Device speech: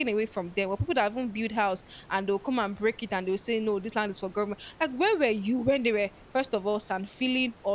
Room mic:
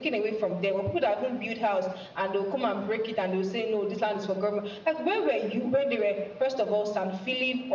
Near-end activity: none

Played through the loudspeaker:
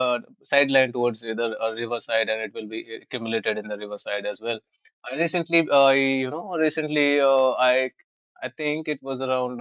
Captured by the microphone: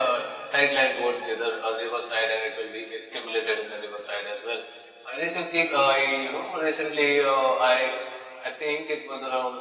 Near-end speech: none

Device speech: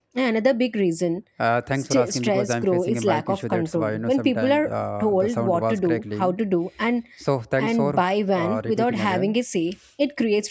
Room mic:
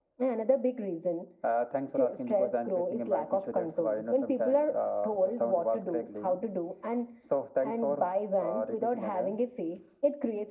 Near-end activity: none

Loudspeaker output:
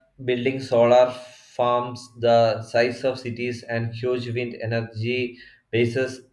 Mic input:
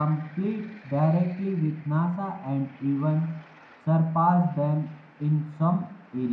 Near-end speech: present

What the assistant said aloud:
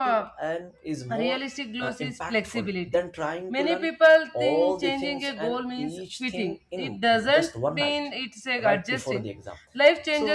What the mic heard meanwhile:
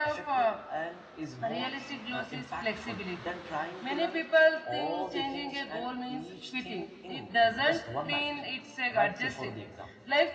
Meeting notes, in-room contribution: none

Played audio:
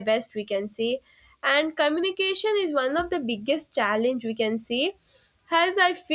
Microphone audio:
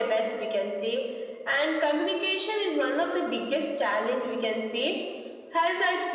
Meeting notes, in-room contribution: none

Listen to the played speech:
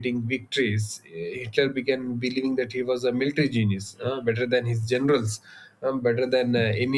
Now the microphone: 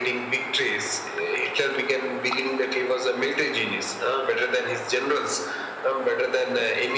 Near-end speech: none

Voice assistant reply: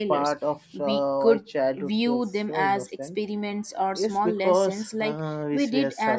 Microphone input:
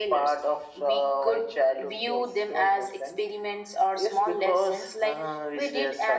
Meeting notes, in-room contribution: none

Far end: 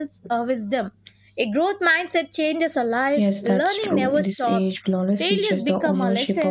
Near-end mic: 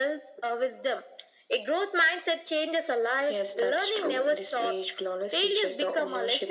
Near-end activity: none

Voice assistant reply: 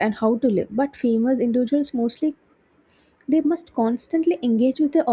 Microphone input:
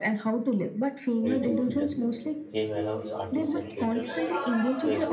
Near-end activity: present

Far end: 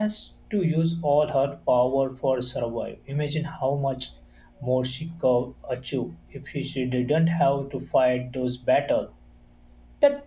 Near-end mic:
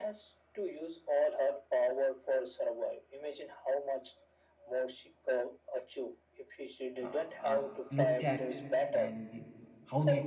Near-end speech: present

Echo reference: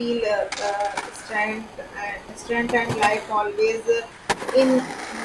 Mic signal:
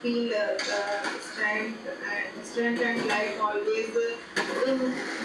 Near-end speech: none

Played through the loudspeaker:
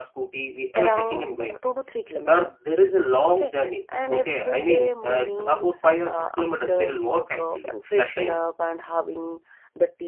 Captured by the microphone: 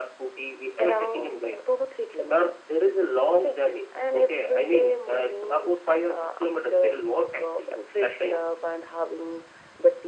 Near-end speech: none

